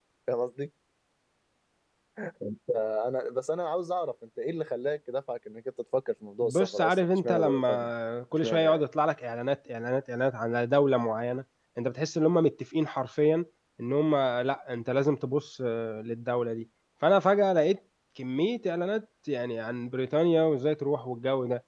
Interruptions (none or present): present